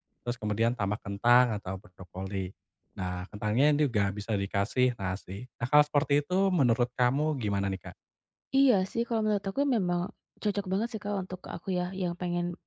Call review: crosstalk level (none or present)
none